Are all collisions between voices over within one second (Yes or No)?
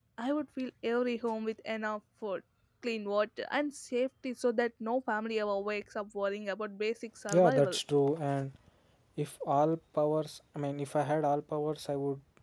Yes